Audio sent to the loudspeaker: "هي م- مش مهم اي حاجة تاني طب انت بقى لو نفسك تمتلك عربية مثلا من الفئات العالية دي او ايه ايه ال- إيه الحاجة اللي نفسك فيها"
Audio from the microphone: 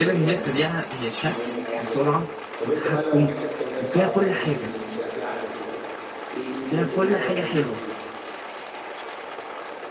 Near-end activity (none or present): present